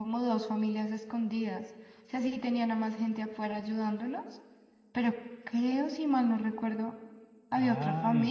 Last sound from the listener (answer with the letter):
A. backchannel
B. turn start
B